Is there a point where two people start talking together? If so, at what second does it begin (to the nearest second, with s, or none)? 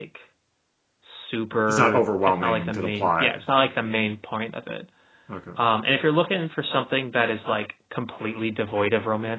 2 s